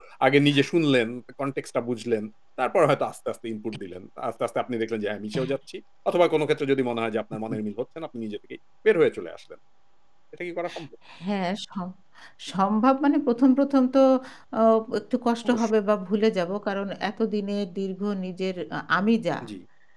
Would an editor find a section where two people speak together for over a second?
No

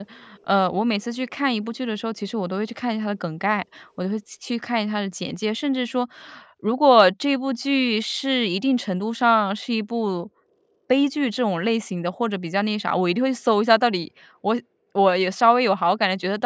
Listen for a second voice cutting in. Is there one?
No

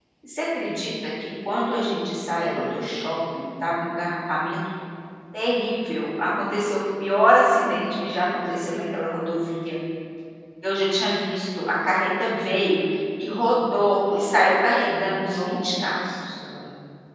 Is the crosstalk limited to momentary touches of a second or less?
No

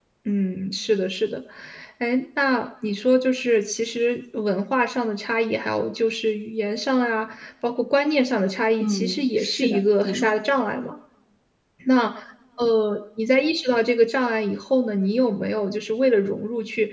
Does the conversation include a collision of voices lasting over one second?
Yes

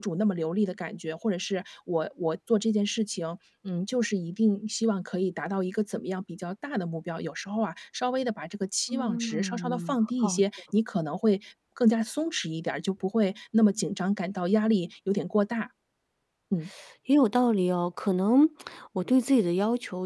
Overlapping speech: Yes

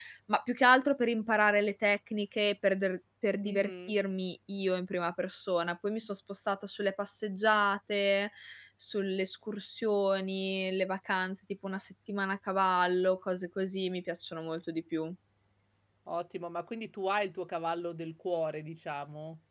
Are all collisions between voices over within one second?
Yes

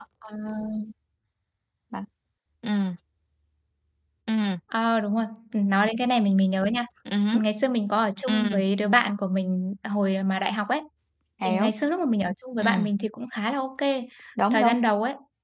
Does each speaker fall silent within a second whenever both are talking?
Yes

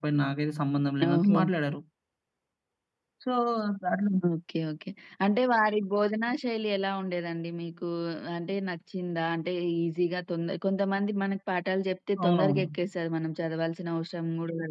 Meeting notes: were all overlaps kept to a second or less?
Yes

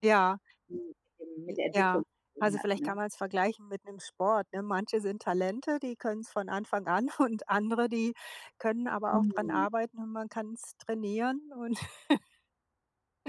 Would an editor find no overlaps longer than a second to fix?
Yes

